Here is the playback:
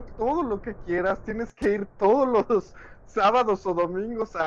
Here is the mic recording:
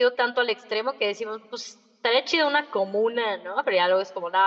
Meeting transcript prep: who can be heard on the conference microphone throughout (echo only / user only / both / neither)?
user only